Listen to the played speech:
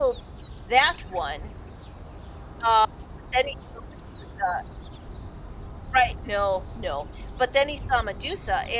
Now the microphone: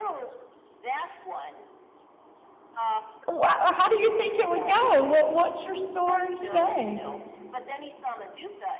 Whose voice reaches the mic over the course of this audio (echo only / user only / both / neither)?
both